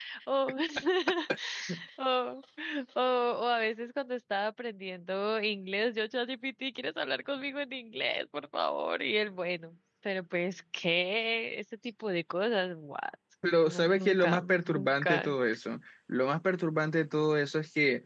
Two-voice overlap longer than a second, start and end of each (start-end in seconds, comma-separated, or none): 13.7-15.3